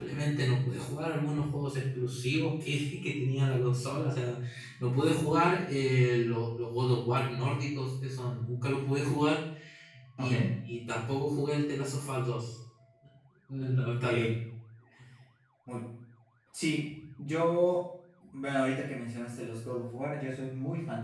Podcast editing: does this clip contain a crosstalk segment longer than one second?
No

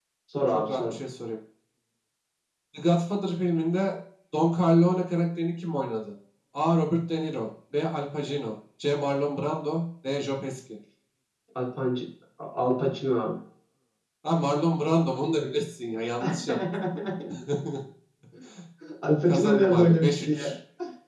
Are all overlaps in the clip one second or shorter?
No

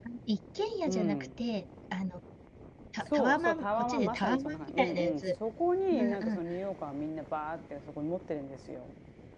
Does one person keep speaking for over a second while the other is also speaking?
Yes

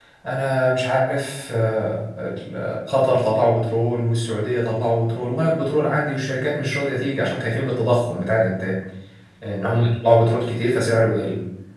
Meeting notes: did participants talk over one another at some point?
No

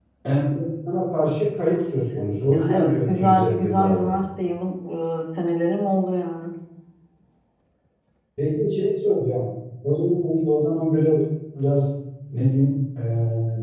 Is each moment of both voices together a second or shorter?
No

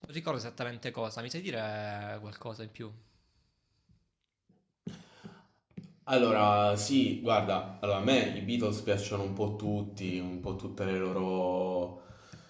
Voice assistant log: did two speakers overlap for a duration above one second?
No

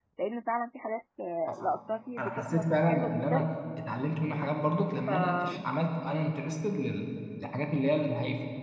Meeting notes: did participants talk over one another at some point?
Yes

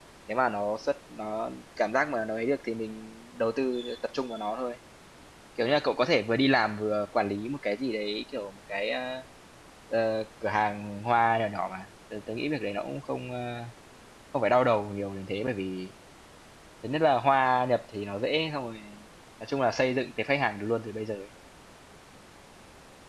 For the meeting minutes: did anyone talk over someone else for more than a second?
No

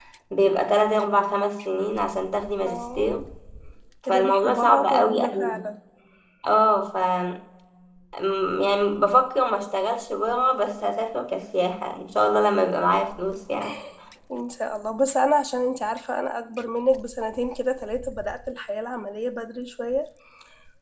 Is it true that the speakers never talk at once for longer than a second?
No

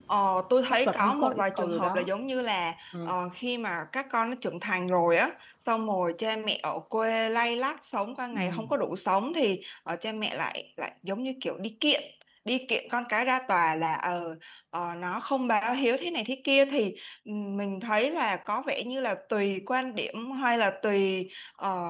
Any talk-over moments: Yes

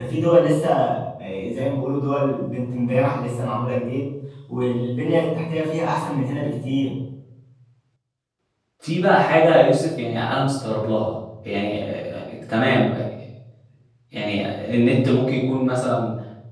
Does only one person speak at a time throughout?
Yes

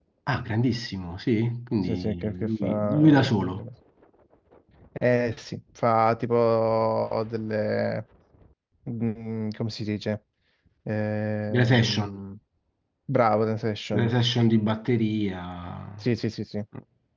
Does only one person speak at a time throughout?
No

